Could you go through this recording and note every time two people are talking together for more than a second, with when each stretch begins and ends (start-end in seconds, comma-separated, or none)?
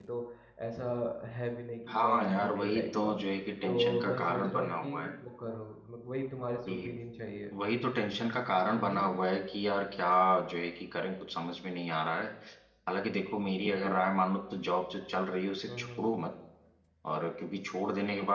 1.9-3.2, 3.7-5.1